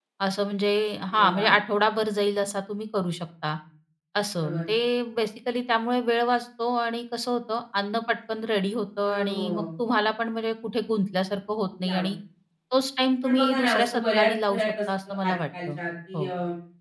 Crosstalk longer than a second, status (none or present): present